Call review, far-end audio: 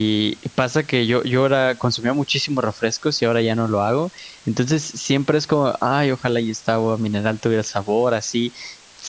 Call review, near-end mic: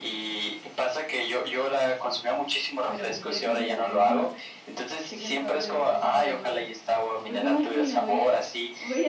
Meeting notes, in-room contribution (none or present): present